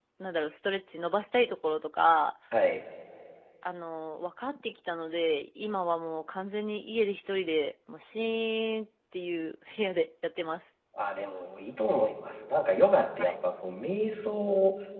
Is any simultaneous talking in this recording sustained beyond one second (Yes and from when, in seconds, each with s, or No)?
No